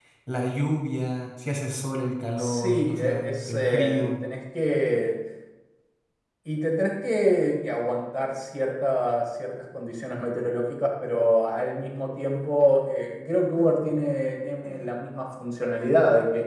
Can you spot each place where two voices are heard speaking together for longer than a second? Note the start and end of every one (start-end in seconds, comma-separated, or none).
2.4-4.1